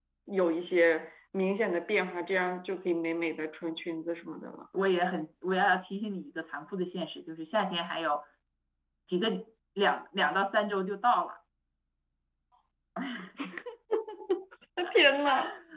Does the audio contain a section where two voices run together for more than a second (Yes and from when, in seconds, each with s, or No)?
No